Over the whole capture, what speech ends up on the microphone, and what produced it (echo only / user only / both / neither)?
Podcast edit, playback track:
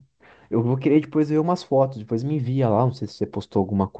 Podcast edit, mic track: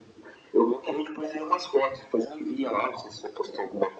echo only